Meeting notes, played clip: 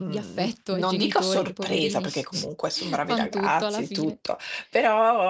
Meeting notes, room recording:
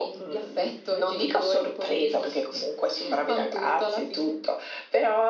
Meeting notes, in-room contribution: none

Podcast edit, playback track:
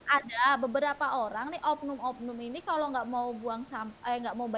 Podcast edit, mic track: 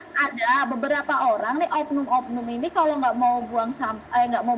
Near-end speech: none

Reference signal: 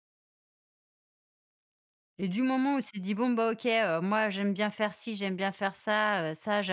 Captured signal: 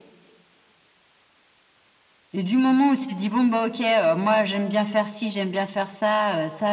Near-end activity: none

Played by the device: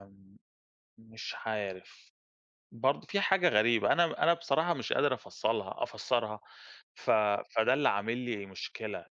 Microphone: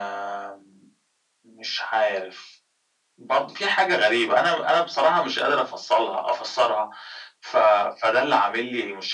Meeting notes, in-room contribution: none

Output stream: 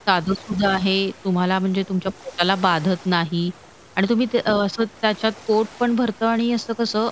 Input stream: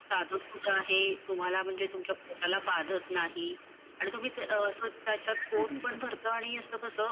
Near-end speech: present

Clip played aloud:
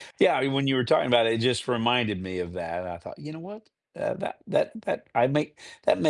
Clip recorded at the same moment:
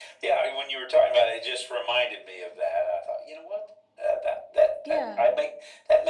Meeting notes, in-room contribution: present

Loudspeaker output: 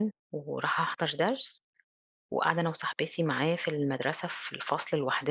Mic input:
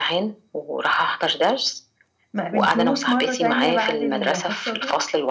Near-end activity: present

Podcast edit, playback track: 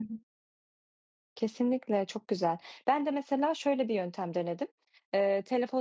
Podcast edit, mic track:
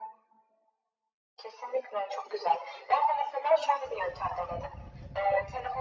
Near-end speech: none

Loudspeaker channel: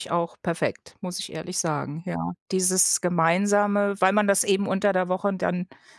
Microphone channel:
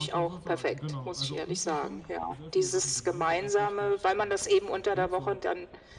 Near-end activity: present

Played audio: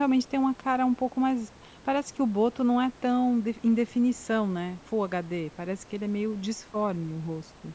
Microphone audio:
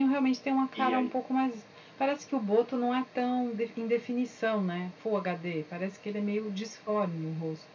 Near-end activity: present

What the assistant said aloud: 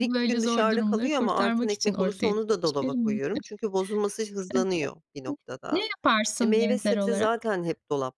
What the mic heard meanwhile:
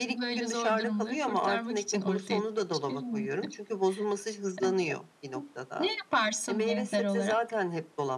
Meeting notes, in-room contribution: none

